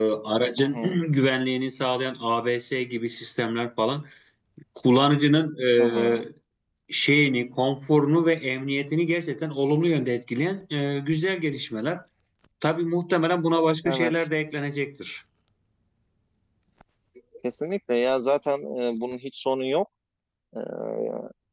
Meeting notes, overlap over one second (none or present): none